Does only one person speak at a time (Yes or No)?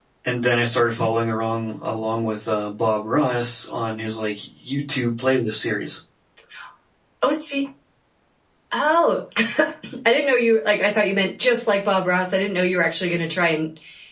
Yes